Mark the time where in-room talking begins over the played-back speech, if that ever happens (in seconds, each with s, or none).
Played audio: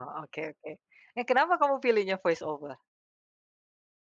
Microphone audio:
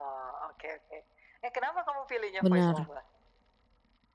2.4 s